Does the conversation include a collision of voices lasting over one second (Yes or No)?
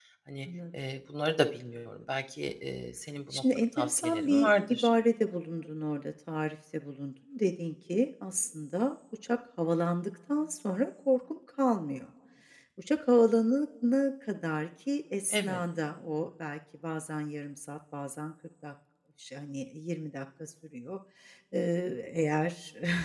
Yes